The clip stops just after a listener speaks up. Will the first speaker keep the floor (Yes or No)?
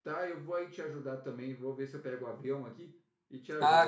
No